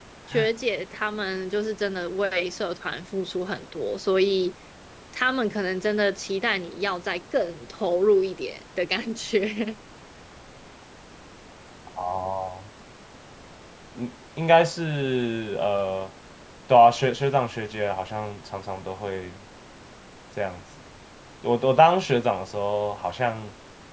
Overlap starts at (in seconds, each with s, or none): none